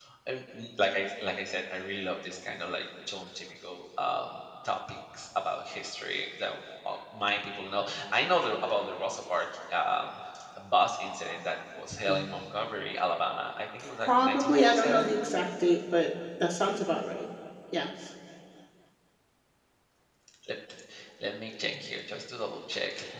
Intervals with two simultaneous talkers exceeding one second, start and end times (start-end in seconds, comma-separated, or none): 13.8-15.1